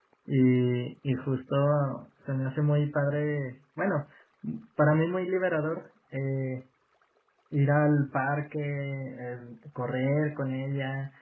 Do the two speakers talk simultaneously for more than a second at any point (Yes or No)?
No